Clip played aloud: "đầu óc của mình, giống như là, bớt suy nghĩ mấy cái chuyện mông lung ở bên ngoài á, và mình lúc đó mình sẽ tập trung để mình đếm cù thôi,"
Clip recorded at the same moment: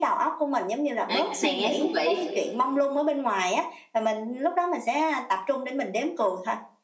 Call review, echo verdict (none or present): present